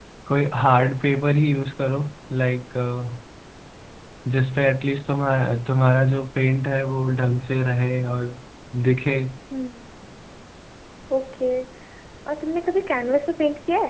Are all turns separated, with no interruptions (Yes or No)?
Yes